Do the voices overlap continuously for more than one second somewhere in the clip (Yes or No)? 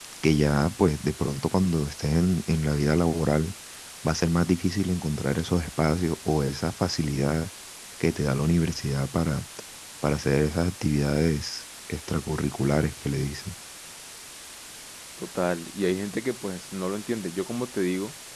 No